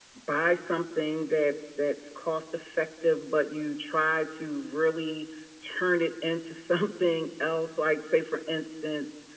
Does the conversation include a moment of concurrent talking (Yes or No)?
No